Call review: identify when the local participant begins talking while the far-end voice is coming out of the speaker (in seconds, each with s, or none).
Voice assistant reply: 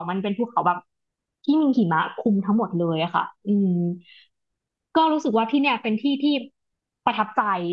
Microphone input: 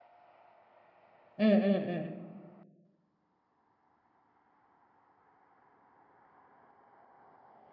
1.4 s